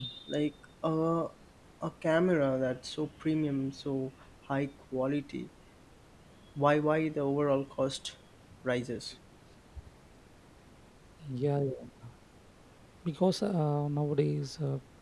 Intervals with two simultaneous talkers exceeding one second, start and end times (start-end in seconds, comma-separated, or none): none